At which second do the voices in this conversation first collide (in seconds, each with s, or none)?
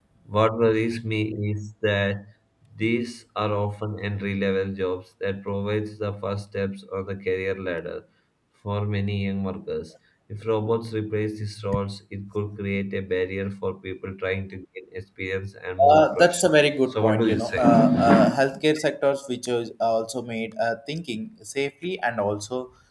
15.8 s